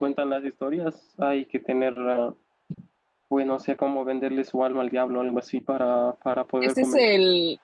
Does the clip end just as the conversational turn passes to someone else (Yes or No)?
Yes